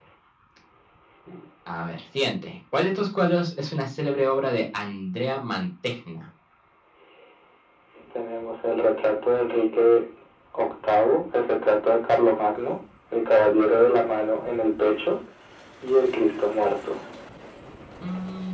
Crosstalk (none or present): none